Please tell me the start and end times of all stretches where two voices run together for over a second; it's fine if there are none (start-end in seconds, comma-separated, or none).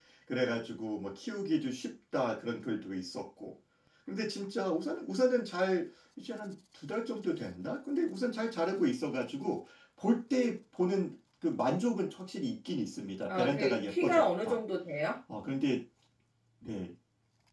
13.3-14.6